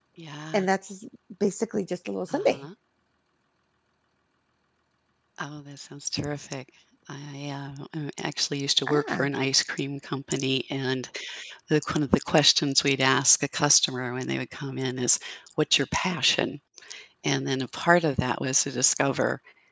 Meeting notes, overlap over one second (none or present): none